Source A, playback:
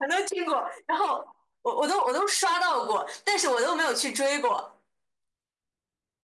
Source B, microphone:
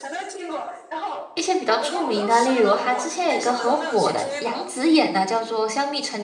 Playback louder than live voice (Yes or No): No